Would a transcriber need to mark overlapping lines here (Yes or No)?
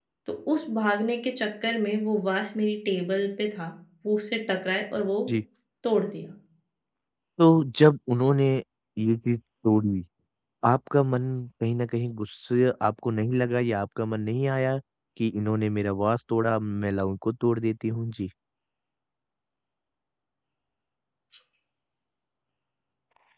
No